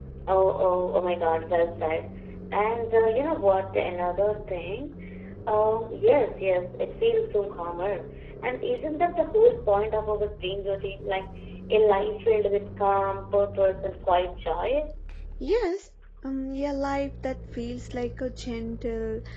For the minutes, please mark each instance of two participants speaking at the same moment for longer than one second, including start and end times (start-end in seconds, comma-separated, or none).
none